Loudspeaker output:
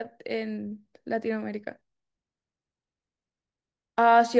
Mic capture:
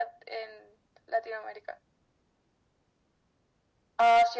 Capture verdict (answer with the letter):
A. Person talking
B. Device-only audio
B